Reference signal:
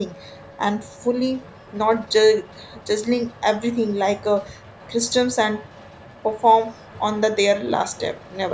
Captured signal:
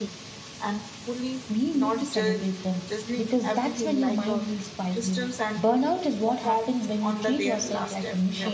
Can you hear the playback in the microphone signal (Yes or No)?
Yes